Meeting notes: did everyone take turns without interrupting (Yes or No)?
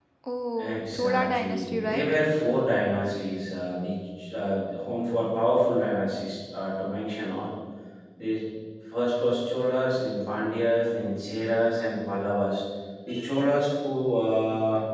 No